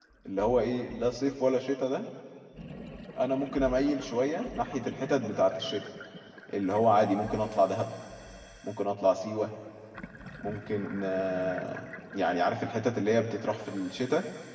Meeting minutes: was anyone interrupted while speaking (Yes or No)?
No